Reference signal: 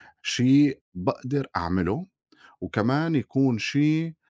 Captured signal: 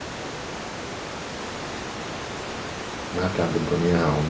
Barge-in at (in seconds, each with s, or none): 3.1 s